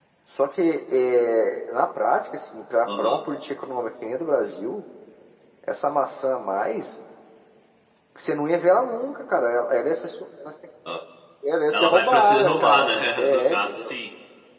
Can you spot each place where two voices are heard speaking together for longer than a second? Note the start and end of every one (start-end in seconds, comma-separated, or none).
11.7-13.9